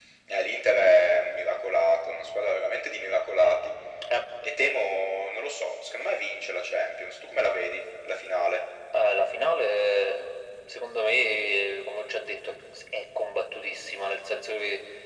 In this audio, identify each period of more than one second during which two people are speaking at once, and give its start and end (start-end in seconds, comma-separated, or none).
none